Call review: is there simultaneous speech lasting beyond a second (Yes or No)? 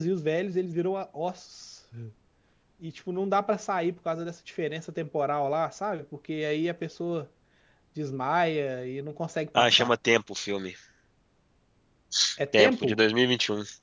No